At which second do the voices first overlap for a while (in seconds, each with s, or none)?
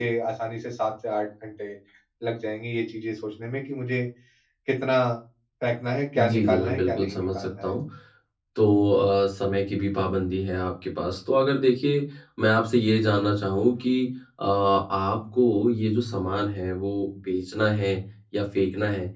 6.2 s